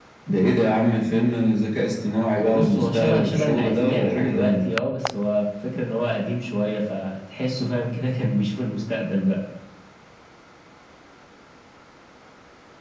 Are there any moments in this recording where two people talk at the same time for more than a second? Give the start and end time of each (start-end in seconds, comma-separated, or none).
2.4-4.6